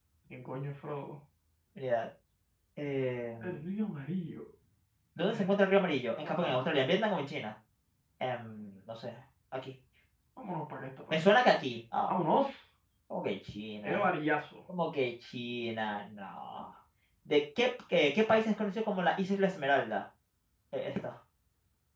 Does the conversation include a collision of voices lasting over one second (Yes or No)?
No